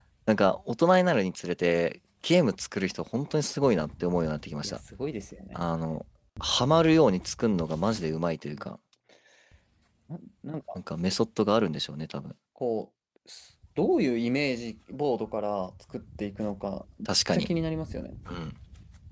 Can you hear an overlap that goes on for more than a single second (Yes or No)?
No